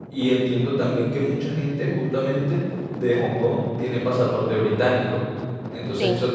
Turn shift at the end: No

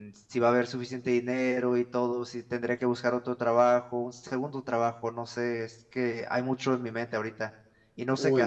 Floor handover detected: Yes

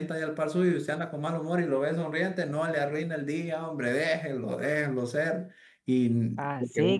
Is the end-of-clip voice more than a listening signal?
Yes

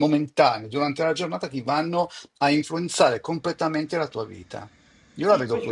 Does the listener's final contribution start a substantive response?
Yes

